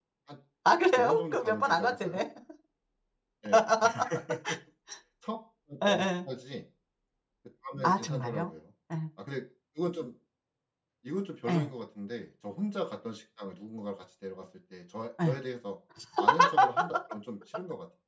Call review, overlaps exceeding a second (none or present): present